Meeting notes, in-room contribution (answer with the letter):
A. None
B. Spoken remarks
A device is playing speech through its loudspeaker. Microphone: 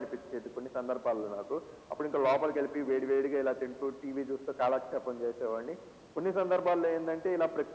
A